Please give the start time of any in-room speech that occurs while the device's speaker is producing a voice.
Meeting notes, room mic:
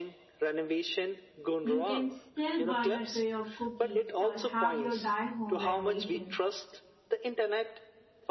1.6 s

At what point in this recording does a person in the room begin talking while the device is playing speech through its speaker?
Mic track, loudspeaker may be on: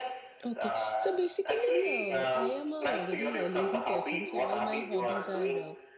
0.4 s

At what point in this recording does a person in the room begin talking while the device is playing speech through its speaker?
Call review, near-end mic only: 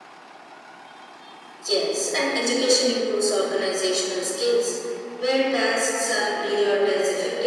none

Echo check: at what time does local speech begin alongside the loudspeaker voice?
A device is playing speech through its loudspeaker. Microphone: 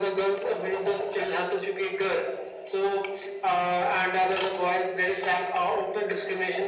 none

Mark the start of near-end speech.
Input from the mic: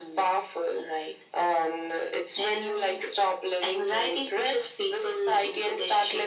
none

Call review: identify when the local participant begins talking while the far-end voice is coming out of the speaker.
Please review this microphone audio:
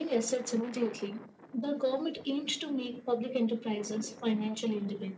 none

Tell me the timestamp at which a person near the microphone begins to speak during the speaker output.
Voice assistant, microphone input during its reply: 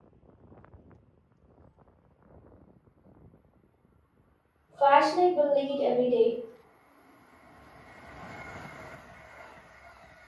4.8 s

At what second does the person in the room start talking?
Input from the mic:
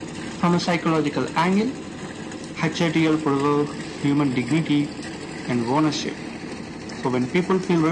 none

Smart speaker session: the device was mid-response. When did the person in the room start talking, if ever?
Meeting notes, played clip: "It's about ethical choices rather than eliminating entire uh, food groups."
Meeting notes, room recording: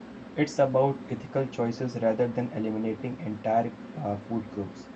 none

